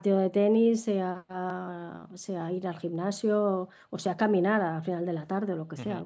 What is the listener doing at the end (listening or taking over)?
taking over